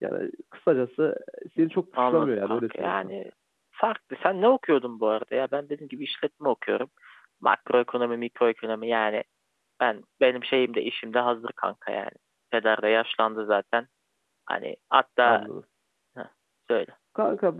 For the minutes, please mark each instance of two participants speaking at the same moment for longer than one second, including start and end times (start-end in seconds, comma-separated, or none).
1.6-3.1